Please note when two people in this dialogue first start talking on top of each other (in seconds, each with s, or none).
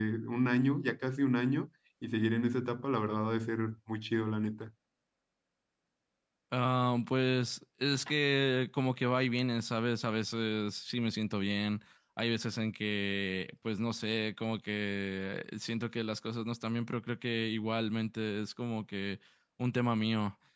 none